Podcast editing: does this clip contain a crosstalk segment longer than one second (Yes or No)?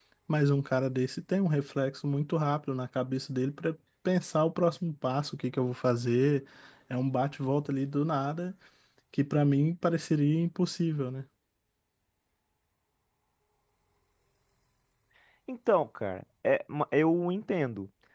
No